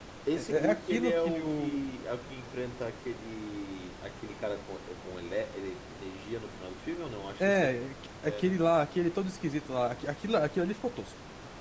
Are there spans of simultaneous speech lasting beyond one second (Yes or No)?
Yes